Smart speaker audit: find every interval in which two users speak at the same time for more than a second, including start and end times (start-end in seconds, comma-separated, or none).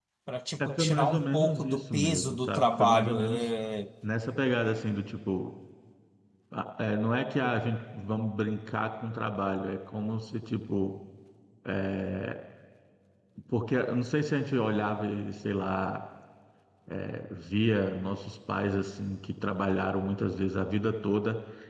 0.6-3.5